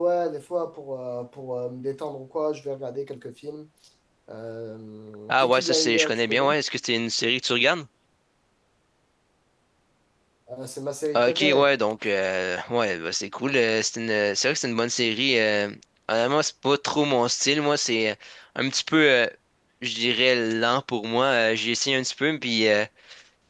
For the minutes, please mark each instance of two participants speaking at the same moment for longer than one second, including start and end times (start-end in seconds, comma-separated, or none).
5.3-6.5